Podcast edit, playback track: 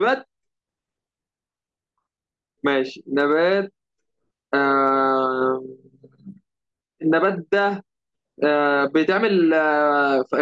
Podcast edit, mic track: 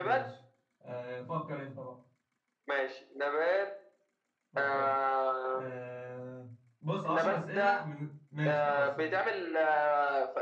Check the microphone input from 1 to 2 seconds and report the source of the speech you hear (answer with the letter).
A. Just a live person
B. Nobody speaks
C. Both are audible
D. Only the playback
A